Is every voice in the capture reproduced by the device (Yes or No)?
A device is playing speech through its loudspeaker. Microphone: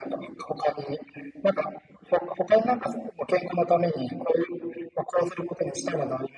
Yes